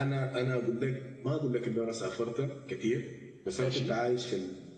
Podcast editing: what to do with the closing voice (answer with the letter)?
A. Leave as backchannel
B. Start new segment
A